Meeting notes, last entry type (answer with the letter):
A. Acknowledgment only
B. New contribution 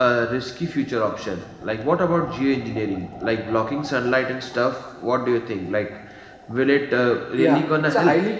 B